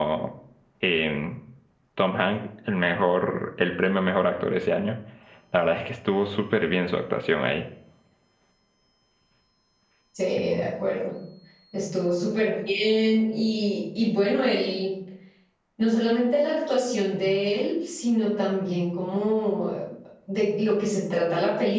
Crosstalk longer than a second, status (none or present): none